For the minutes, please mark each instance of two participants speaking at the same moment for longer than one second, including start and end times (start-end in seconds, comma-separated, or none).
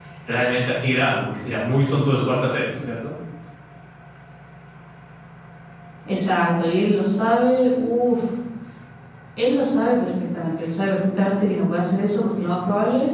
none